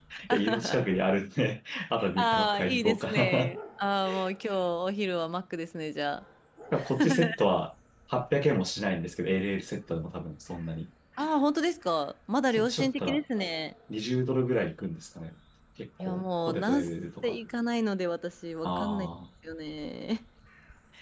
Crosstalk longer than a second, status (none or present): present